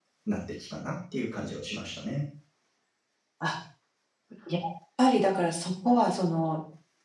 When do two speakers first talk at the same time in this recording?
none

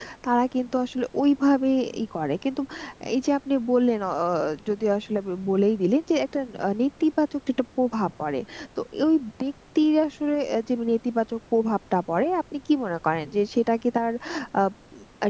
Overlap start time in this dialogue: none

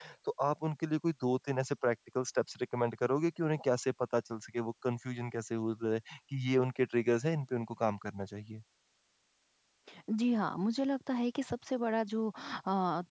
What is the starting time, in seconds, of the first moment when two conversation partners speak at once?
none

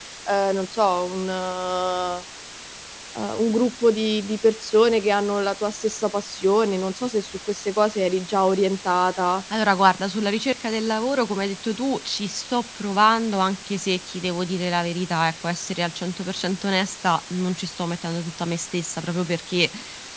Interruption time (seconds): none

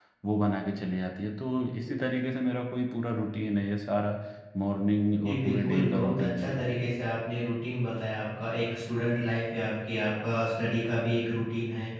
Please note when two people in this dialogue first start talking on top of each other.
5.2 s

